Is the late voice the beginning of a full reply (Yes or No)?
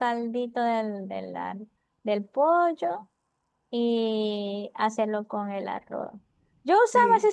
No